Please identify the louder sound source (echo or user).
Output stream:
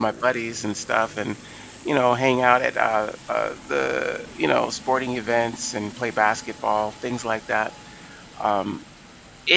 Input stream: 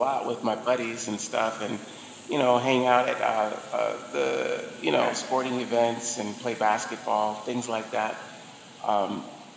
echo